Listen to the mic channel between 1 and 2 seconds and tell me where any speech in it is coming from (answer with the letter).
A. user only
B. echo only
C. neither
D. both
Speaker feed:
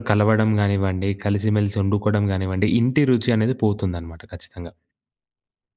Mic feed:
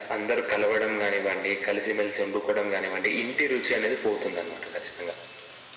B